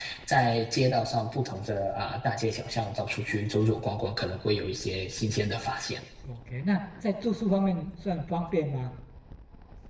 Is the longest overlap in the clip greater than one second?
No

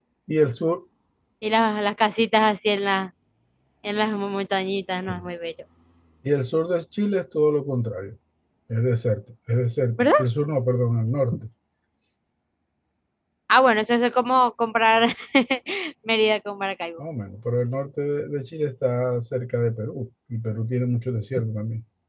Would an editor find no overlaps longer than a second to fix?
Yes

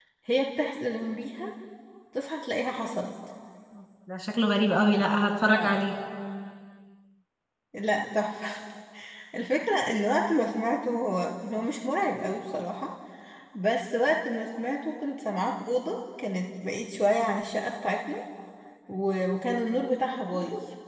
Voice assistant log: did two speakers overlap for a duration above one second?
No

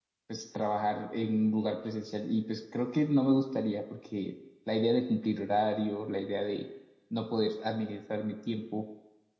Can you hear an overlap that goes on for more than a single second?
No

